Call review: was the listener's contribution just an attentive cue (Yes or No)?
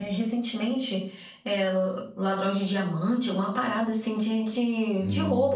Yes